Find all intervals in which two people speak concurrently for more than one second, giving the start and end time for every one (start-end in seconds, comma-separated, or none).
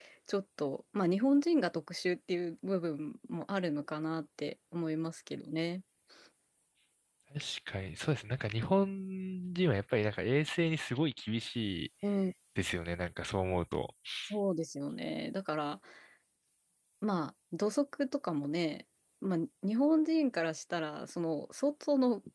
none